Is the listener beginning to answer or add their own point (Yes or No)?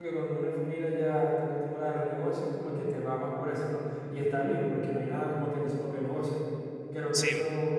No